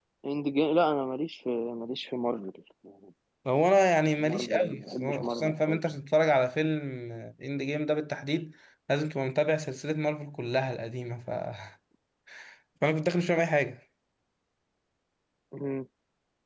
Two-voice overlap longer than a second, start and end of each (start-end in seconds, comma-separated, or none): 4.3-5.8